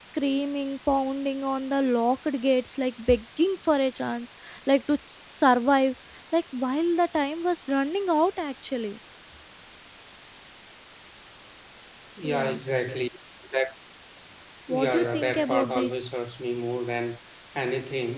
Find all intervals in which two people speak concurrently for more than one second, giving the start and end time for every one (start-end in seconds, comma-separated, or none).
14.7-15.9